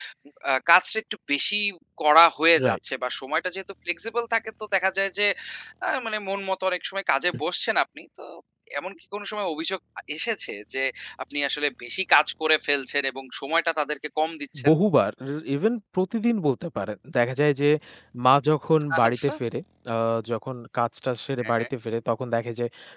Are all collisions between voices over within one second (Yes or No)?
Yes